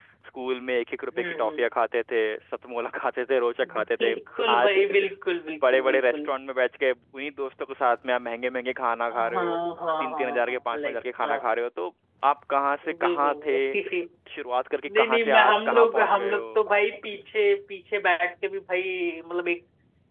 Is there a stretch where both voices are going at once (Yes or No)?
Yes